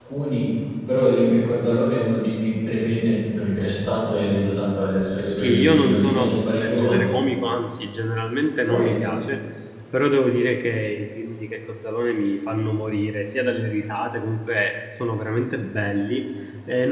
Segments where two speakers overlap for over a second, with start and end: 5.3-7.2

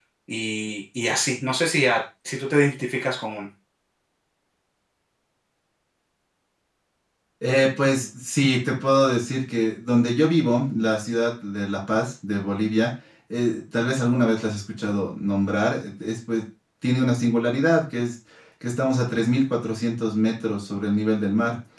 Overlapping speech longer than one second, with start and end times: none

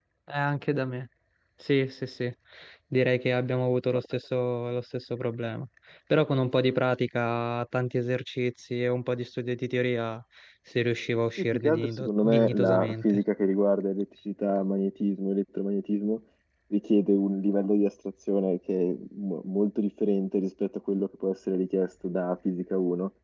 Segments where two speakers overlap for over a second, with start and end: 11.4-13.2

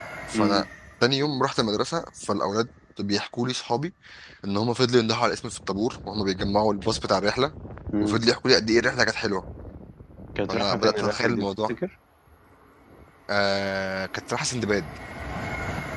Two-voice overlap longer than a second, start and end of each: 10.5-11.8

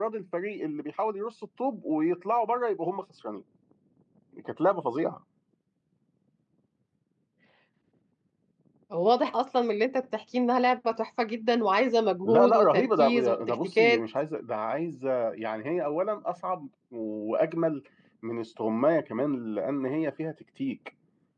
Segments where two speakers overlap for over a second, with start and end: 12.2-14.0

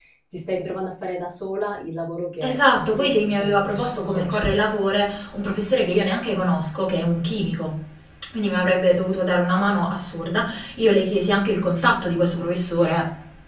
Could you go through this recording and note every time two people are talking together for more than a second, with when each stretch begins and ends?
2.4-4.5

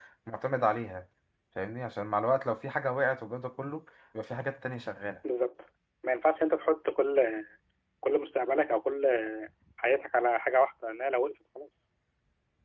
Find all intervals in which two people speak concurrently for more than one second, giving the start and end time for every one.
none

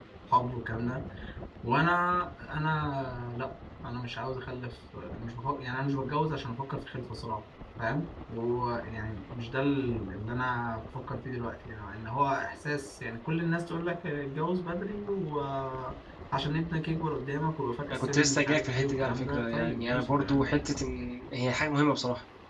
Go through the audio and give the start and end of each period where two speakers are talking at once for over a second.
17.9-20.5

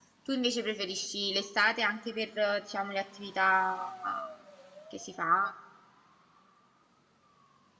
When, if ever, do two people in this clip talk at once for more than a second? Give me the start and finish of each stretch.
none

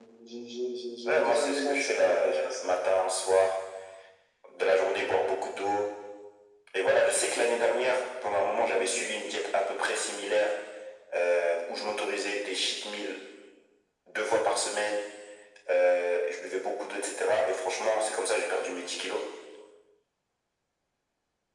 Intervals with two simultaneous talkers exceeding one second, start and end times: 1.0-2.7

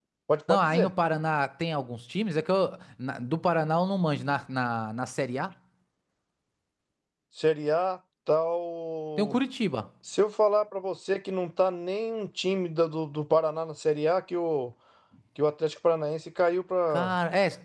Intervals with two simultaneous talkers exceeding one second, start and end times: none

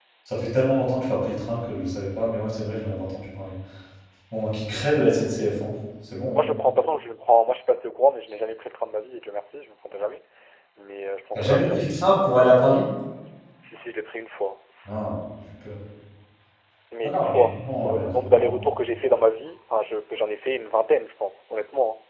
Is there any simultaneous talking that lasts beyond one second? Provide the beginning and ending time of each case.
17.0-18.6

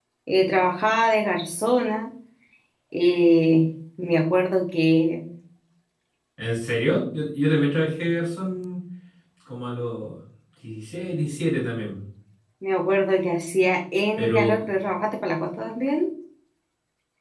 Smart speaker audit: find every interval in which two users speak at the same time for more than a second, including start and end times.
none

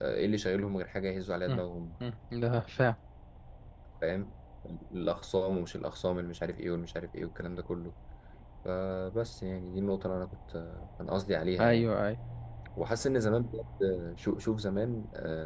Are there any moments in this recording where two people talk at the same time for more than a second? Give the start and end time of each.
none

